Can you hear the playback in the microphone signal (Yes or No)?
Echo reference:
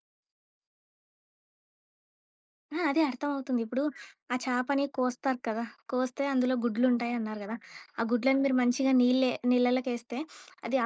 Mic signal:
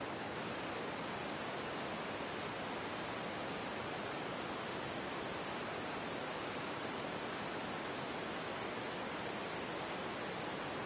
No